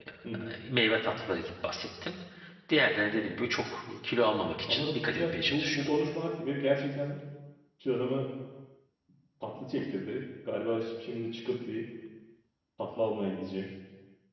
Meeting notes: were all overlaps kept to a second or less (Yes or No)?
No